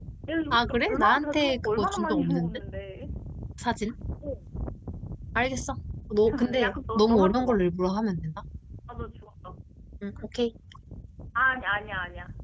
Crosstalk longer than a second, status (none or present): present